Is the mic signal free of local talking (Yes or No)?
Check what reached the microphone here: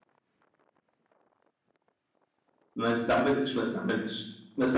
No